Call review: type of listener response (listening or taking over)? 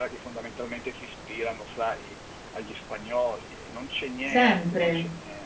taking over